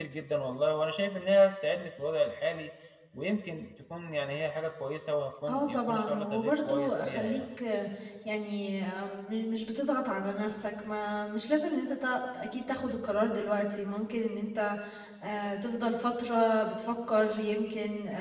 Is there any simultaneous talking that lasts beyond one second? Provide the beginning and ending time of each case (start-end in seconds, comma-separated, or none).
5.5-7.4